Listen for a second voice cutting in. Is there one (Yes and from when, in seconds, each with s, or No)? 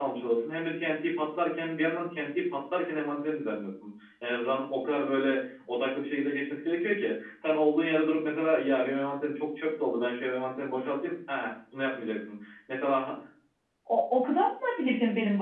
No